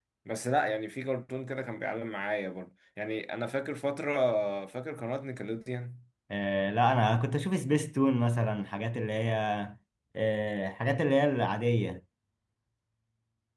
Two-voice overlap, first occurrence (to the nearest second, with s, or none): none